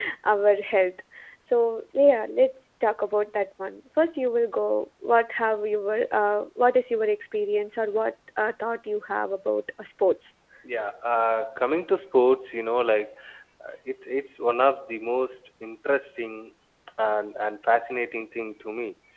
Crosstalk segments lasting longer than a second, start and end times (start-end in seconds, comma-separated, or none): none